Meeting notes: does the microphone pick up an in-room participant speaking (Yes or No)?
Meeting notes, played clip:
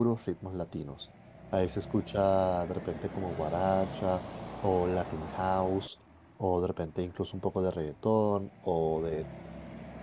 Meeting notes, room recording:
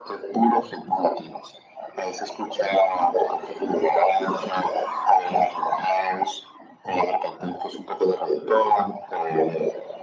No